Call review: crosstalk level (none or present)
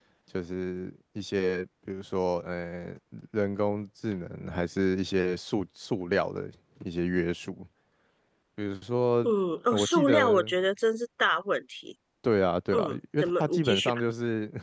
present